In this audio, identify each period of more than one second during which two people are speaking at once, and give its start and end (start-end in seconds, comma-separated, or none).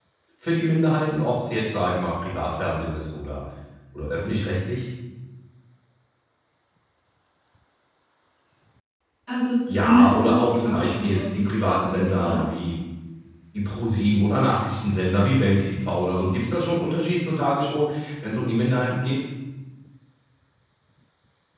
9.7-12.4